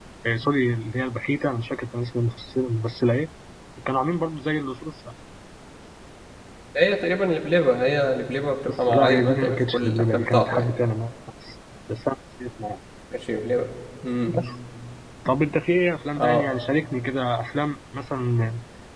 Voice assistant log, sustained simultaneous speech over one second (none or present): present